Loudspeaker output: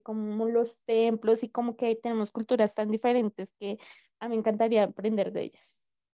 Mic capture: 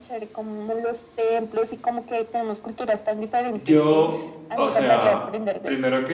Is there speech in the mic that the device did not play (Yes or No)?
Yes